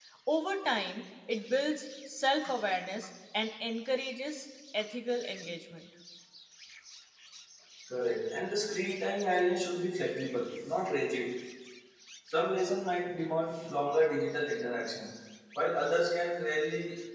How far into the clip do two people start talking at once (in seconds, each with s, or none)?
none